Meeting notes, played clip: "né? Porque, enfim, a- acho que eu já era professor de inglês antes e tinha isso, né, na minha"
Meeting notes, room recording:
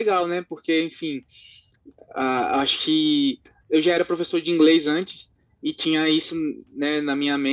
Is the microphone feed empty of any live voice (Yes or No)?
Yes